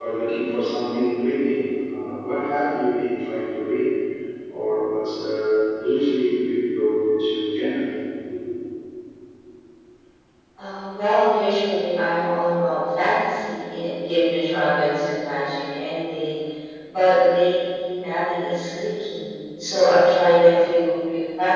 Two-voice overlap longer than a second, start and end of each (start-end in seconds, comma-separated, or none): none